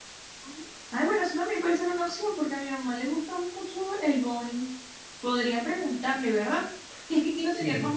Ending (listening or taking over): listening